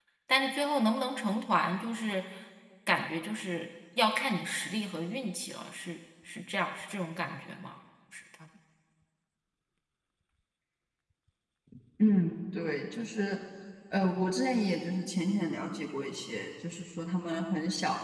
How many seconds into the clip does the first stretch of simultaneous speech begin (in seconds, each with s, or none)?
none